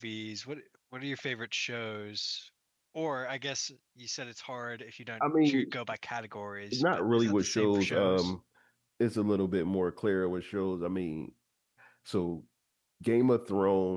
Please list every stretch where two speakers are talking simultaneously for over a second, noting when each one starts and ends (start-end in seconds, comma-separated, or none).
6.7-8.3